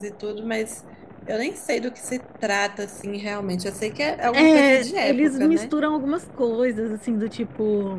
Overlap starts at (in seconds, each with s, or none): 4.3 s